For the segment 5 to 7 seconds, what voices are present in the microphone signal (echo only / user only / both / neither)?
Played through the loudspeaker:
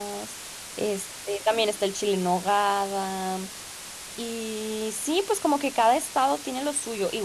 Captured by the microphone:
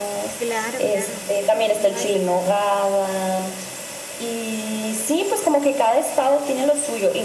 echo only